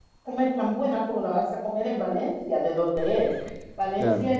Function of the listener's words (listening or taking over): listening